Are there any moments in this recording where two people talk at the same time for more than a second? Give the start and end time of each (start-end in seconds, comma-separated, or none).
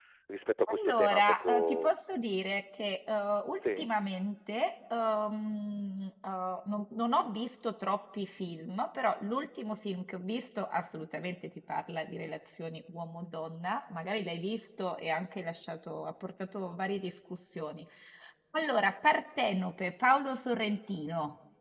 0.7-2.0